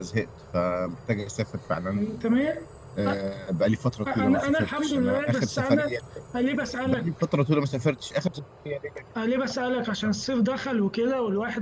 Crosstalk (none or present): present